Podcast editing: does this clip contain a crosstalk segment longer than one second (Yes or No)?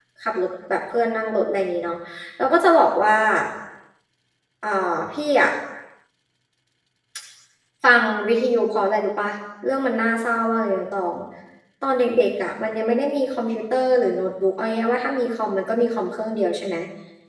No